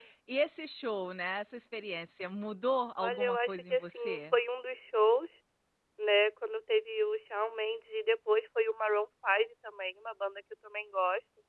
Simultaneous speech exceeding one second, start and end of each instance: 3.0-4.3

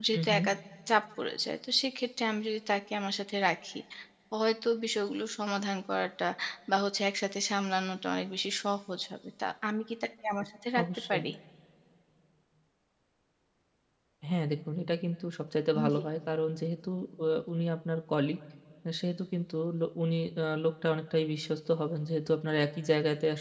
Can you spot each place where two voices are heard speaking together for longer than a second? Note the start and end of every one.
none

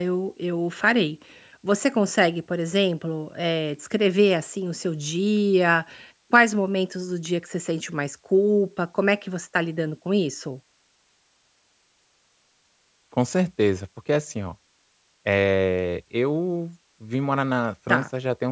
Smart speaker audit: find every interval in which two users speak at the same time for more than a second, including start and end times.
none

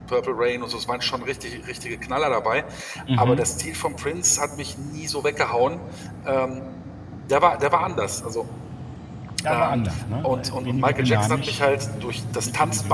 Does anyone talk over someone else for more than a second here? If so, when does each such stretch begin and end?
10.2-11.6

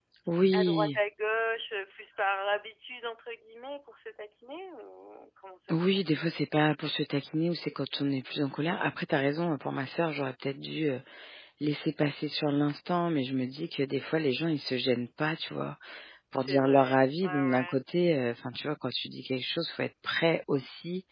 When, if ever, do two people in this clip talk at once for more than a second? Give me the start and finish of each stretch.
16.4-17.7

